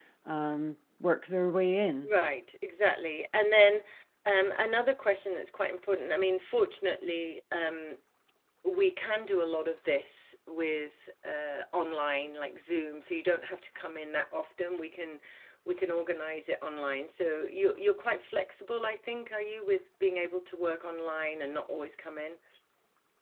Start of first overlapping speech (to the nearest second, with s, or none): none